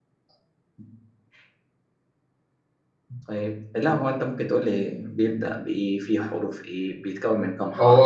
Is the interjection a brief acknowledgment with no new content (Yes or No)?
No